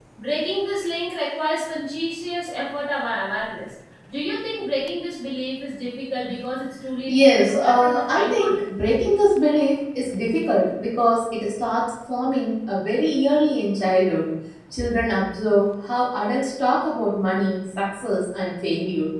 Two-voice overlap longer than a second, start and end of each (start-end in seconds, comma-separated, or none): 7.1-8.6